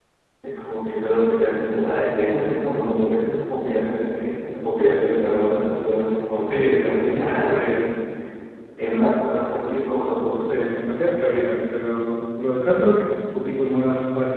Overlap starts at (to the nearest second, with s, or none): 6 s